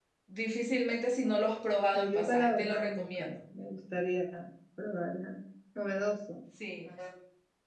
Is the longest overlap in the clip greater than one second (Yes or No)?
Yes